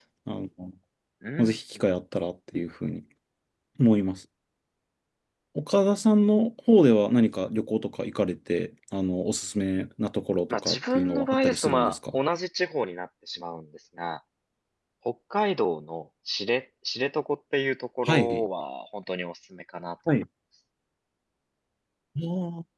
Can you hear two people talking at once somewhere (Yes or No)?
Yes